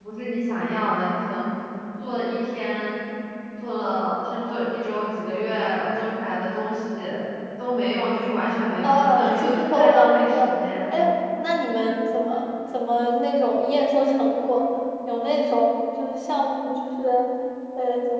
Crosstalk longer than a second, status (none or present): present